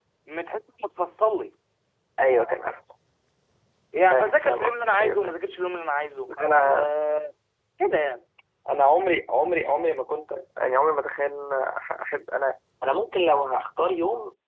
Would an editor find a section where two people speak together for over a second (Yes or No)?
Yes